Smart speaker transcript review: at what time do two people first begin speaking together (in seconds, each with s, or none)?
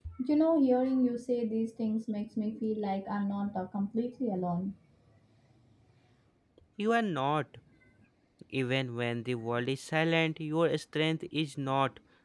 none